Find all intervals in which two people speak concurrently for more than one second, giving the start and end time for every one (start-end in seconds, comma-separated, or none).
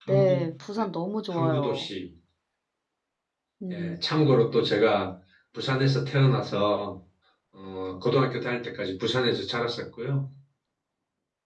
none